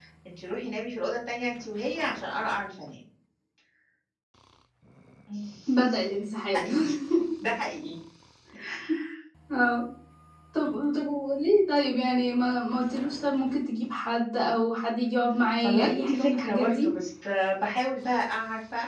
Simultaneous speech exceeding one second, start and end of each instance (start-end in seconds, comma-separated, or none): 15.6-16.9